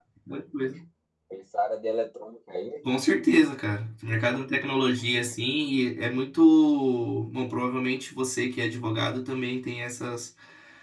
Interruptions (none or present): none